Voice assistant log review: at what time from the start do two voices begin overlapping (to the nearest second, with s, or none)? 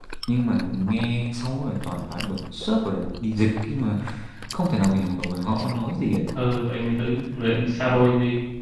none